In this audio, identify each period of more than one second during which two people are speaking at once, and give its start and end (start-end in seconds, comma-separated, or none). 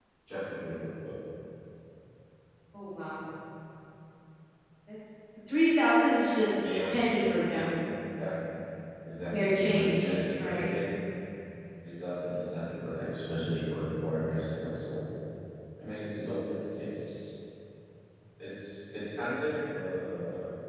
9.3-10.7